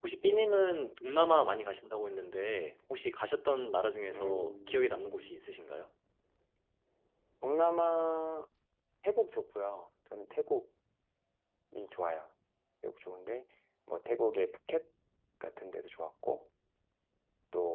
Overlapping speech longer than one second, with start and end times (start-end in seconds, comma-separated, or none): 4.1-5.4